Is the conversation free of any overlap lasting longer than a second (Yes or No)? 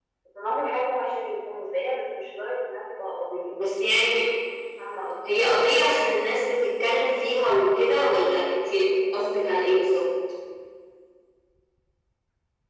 Yes